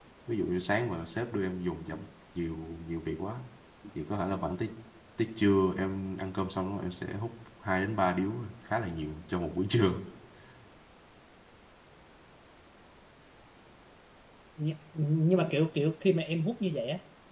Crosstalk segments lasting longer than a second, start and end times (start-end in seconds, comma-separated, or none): none